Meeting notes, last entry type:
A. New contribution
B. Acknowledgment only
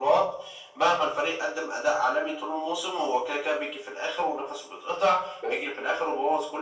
B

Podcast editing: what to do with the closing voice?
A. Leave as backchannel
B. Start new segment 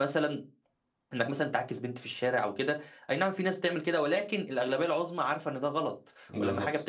A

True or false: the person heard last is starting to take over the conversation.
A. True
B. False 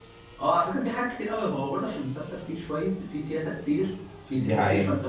B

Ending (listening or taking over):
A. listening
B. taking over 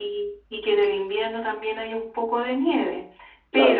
B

